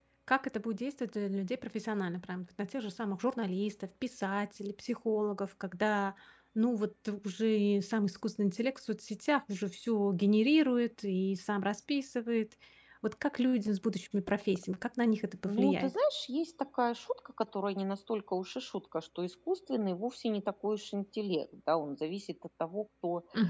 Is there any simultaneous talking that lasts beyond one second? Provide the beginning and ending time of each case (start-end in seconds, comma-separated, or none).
none